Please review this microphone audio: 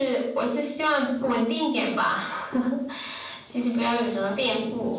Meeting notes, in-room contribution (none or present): none